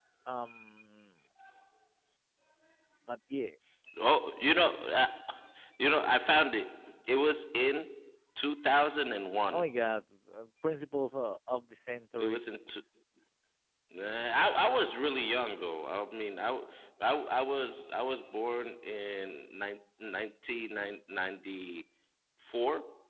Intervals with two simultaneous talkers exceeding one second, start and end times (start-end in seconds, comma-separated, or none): none